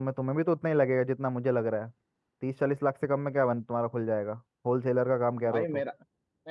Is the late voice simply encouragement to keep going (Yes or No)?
No